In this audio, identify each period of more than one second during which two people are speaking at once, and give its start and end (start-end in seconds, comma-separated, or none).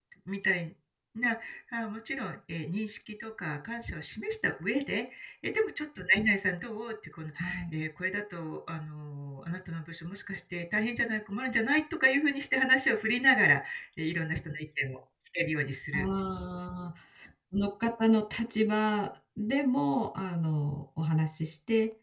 none